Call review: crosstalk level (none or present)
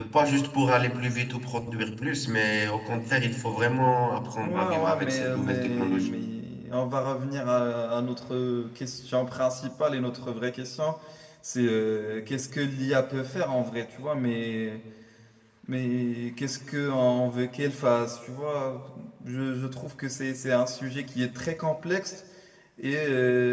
present